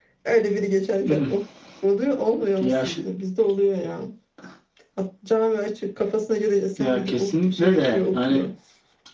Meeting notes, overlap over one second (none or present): present